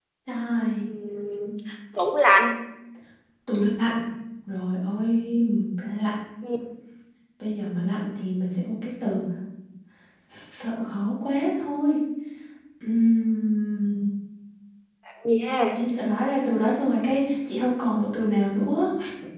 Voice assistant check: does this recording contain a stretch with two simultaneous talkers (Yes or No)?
No